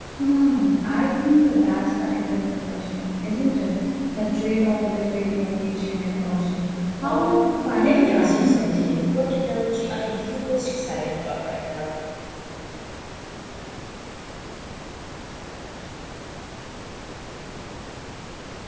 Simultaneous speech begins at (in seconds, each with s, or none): 7.0 s